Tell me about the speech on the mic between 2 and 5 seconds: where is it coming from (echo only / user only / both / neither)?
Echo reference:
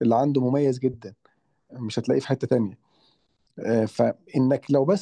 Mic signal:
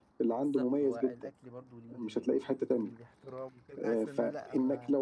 both